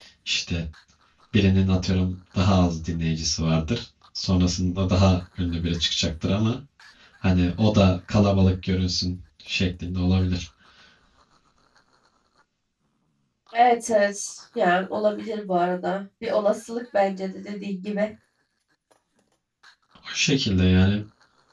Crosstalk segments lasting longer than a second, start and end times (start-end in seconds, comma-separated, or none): none